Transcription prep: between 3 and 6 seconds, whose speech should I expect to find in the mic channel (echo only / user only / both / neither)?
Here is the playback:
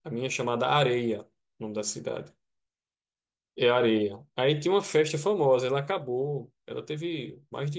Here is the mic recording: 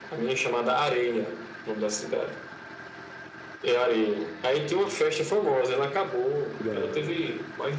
echo only